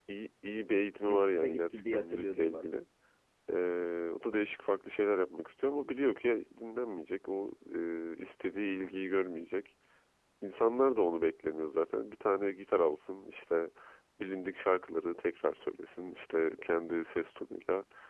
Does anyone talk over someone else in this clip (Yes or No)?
Yes